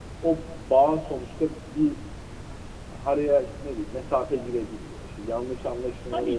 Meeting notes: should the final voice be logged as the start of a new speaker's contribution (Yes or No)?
Yes